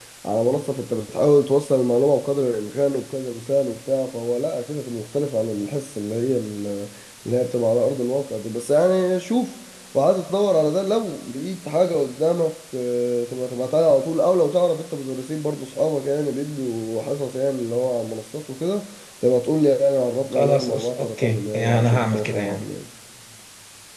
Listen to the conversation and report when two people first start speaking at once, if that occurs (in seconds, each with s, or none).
20.3 s